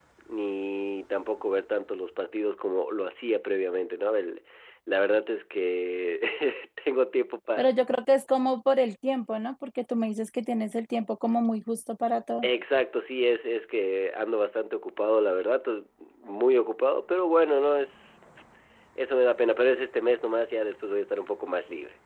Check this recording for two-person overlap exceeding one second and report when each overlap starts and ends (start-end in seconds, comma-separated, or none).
none